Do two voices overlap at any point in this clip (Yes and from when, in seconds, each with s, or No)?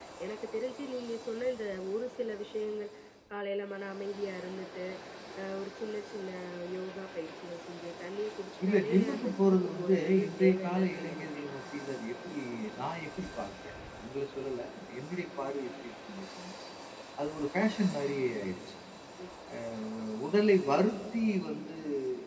Yes, from 8.6 s